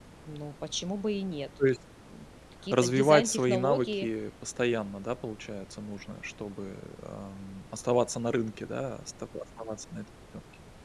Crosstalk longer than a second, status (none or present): present